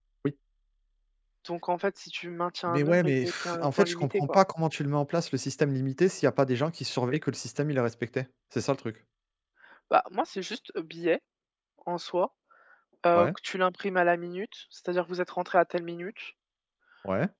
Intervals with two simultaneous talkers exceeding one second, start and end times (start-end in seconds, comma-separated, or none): 2.7-4.4